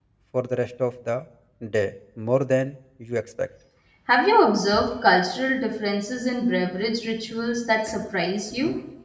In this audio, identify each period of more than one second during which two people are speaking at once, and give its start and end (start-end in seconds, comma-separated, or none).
none